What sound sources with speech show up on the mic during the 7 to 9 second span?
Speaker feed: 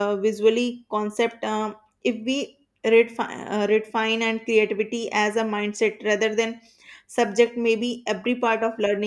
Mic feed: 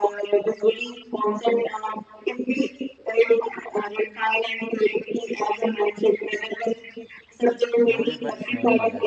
both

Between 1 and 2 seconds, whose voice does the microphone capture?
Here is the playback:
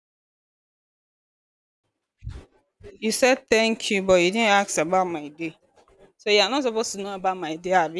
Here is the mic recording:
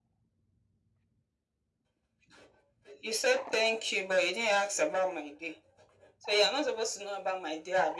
neither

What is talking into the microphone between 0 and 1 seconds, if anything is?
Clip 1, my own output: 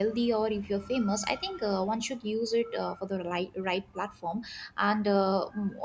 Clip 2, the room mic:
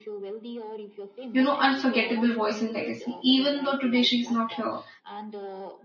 echo only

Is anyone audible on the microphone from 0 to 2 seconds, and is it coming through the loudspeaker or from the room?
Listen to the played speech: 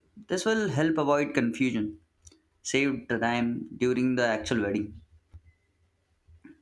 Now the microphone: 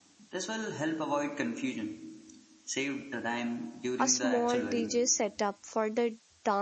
echo only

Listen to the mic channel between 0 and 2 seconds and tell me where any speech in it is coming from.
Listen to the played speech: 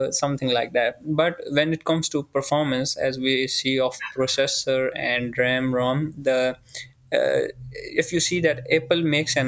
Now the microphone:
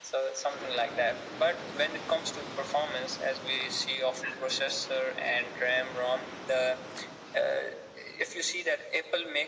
echo only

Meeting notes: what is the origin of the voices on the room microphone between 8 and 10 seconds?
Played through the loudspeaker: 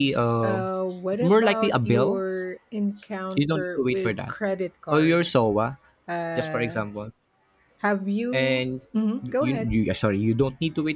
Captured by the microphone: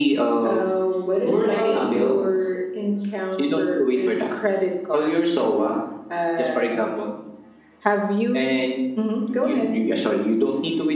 echo only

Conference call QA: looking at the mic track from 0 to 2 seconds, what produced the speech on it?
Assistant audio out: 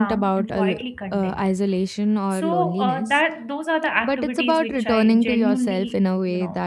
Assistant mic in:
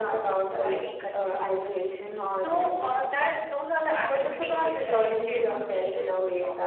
echo only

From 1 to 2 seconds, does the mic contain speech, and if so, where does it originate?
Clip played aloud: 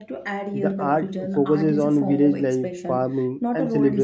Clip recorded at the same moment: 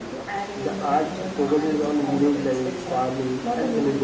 echo only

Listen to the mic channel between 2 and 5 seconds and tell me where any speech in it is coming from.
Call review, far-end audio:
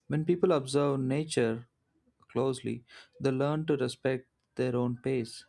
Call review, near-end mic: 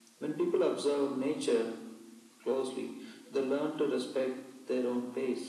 echo only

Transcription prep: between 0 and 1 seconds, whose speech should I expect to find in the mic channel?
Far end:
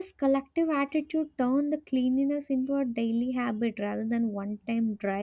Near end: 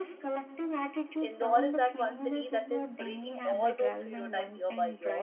echo only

